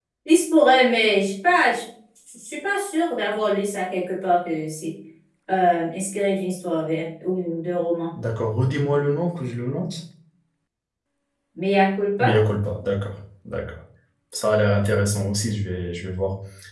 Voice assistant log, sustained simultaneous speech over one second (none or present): none